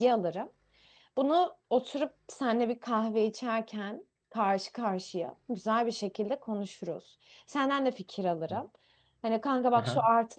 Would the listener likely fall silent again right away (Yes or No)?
Yes